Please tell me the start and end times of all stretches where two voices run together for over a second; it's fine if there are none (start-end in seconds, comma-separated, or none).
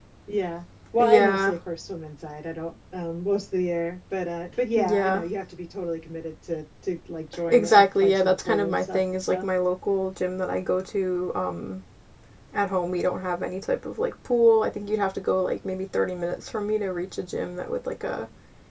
7.5-9.5